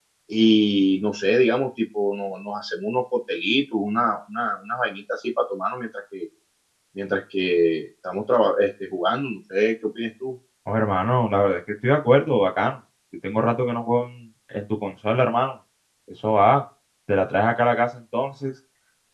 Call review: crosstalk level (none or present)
none